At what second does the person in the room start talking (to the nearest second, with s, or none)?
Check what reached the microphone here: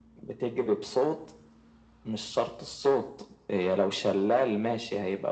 none